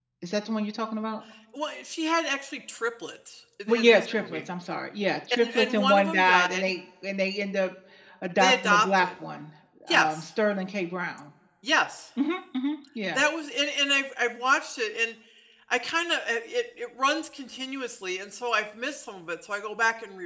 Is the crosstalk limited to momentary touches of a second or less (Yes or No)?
No